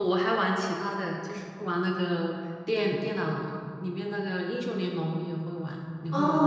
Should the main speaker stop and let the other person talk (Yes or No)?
Yes